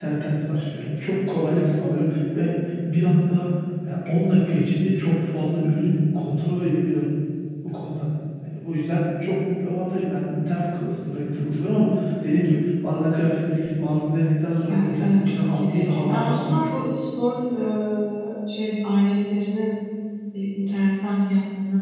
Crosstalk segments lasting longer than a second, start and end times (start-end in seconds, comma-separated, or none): 14.7-16.7